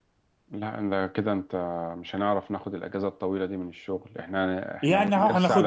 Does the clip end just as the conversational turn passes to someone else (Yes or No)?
Yes